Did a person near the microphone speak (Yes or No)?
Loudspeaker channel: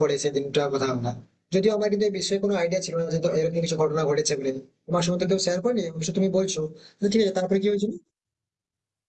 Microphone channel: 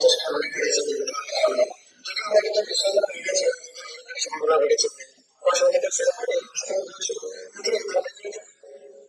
No